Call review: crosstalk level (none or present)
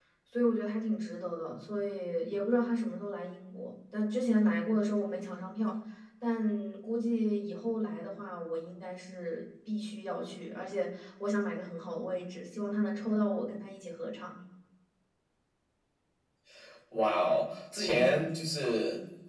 none